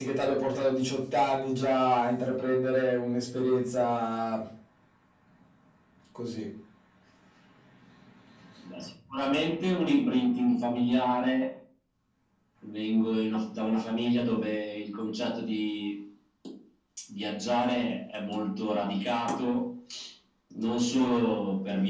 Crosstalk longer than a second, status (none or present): none